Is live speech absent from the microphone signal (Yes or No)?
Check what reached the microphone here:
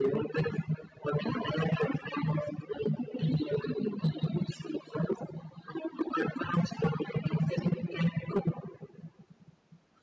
Yes